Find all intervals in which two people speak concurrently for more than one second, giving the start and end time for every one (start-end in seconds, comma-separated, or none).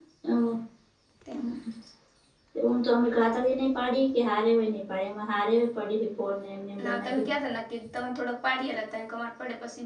none